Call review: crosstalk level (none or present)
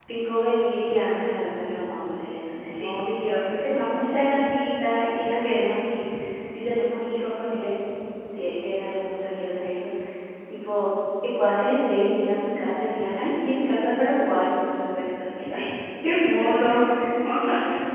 present